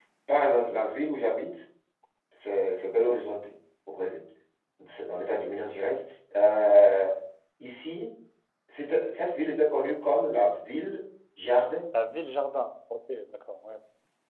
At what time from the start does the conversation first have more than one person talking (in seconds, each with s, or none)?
none